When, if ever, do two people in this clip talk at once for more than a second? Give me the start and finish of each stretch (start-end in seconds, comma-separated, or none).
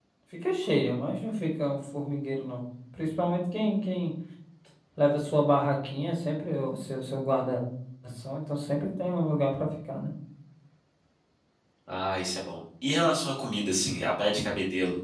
none